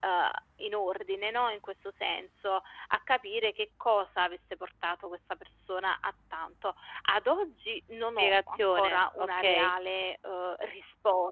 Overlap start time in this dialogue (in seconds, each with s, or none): 8.2 s